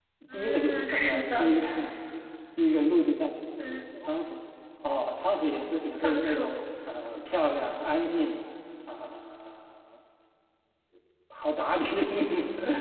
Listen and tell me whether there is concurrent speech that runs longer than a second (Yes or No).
Yes